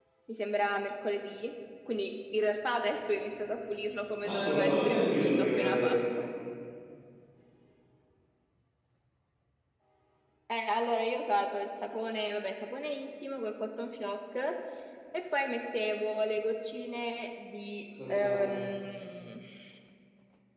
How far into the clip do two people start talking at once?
4 s

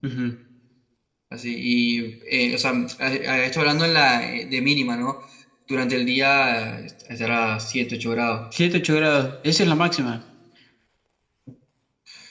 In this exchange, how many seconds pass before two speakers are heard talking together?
none

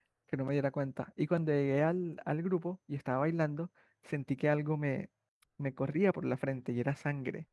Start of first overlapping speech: none

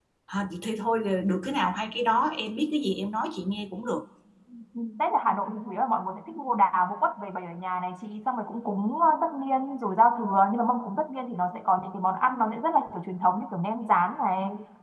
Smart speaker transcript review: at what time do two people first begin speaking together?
none

